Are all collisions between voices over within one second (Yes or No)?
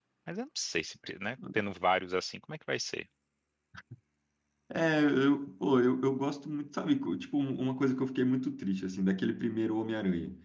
Yes